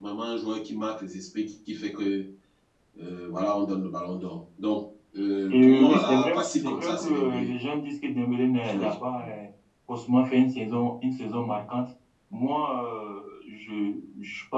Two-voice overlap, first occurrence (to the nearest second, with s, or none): 6 s